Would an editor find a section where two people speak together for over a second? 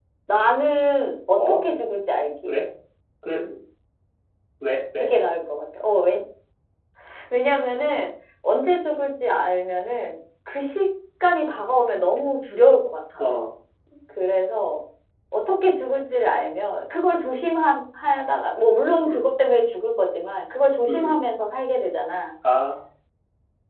No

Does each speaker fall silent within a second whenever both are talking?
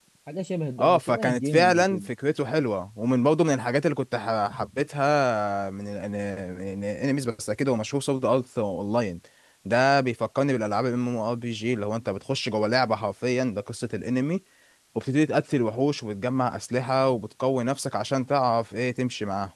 No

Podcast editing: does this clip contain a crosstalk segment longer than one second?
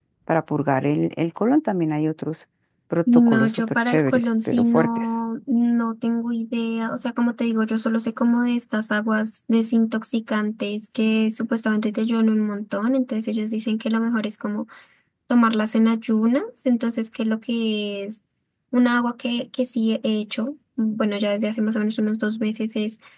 Yes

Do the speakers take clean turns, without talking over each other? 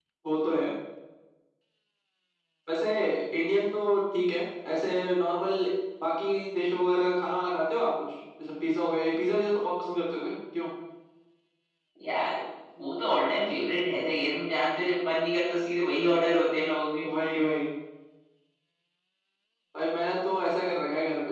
Yes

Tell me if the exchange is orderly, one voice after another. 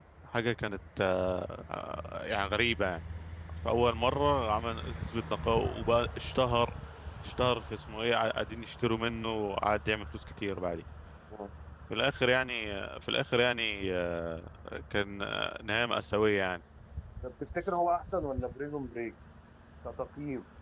Yes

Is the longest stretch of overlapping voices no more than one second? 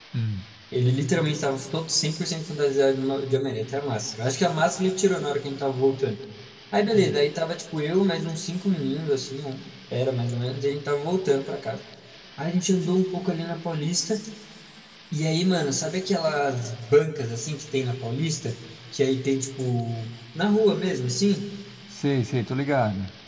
Yes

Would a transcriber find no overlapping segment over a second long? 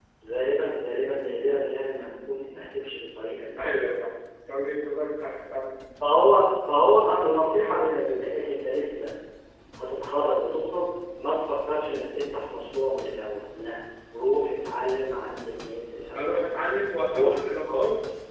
Yes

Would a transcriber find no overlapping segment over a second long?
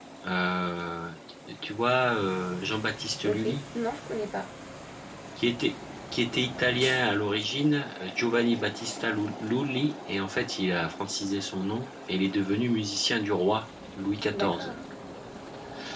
Yes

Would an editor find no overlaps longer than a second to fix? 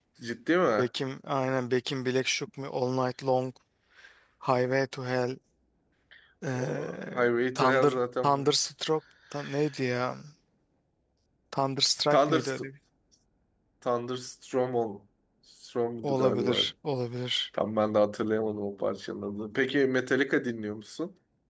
No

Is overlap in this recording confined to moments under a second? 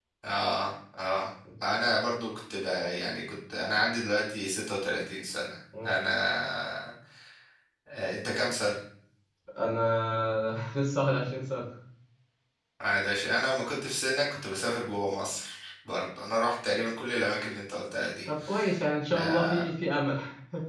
Yes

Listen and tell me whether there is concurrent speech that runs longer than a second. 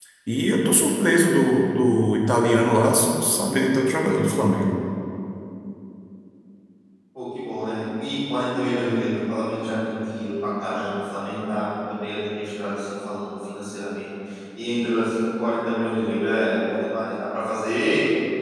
No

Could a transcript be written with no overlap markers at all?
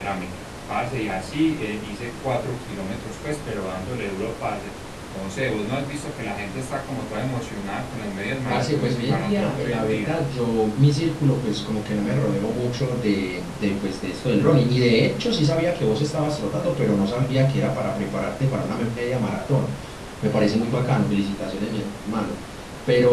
No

